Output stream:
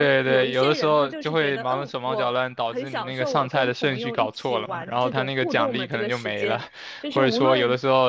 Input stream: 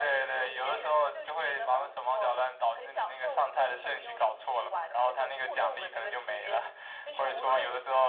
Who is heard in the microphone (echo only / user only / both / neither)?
echo only